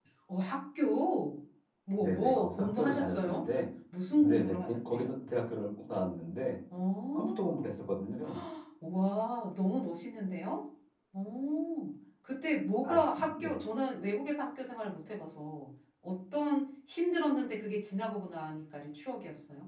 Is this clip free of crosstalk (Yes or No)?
No